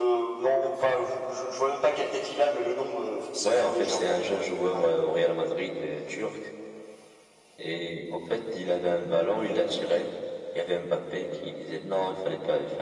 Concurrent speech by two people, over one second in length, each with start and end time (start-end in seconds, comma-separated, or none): 3.4-4.9